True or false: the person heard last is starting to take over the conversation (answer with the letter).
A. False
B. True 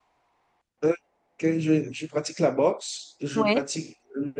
A